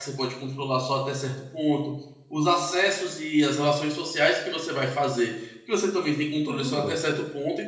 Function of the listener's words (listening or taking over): listening